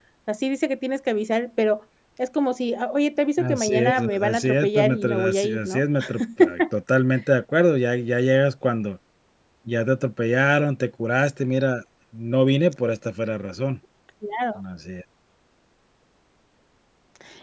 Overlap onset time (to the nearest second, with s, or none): 3 s